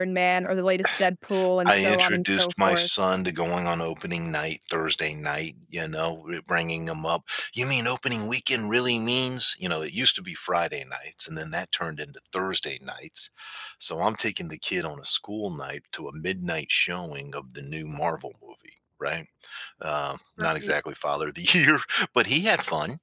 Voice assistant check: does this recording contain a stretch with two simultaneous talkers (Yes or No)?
Yes